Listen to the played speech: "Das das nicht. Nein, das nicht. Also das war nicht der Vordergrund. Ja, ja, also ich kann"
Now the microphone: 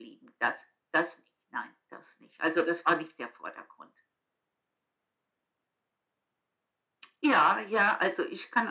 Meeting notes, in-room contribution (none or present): none